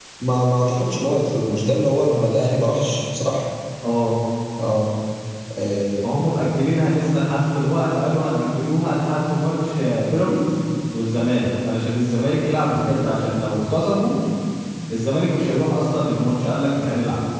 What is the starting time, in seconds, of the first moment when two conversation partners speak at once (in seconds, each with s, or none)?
none